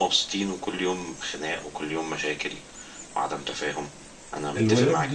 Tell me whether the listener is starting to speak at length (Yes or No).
Yes